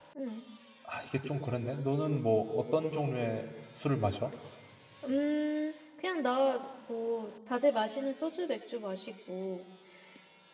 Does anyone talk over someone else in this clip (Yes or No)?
No